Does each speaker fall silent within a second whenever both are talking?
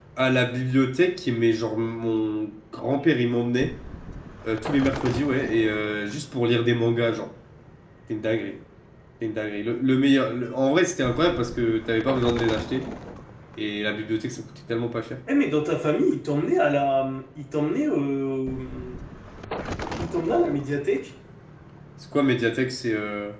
Yes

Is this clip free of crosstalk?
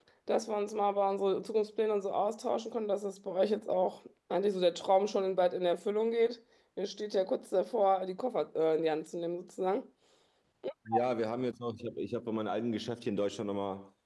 Yes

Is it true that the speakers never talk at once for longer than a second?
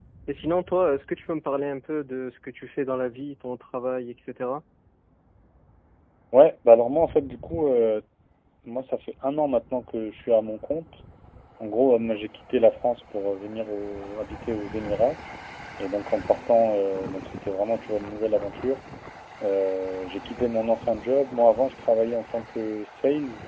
Yes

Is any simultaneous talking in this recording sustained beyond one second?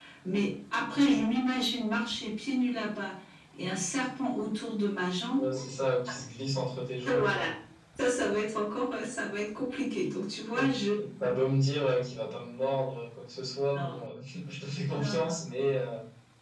No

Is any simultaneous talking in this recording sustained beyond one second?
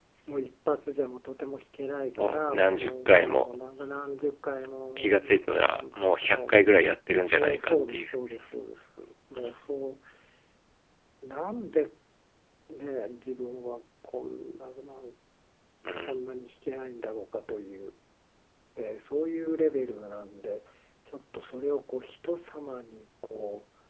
Yes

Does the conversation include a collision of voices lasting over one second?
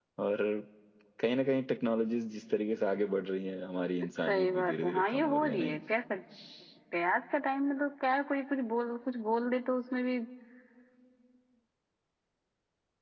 Yes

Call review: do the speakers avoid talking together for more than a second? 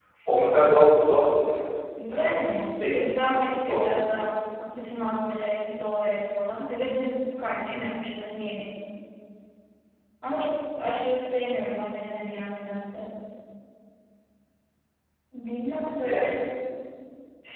Yes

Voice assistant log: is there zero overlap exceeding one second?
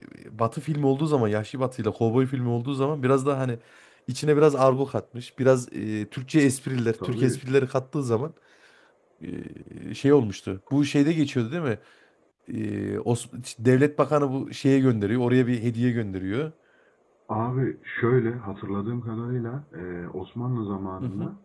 Yes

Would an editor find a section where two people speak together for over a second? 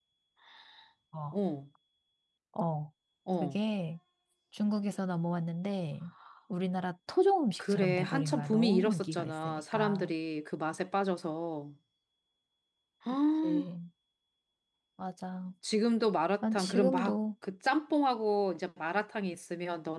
Yes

